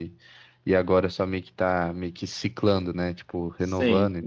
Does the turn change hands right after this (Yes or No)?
Yes